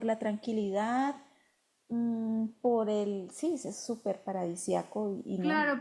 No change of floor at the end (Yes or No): No